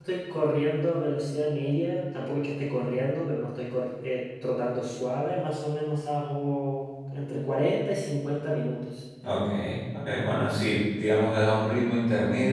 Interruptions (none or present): none